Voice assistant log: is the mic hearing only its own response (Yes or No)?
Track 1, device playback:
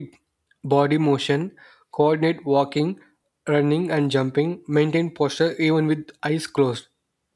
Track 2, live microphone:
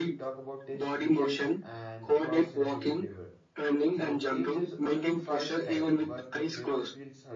No